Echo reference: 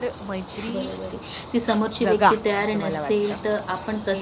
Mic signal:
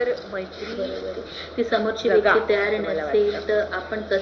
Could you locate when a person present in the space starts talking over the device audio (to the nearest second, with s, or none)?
none